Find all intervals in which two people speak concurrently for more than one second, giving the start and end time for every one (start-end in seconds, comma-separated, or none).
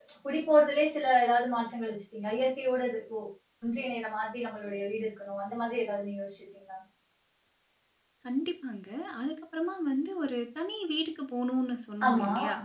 none